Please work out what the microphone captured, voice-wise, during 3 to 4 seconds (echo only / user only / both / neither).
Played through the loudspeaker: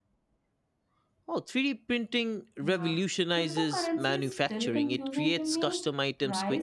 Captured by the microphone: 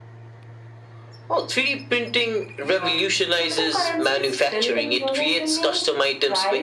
echo only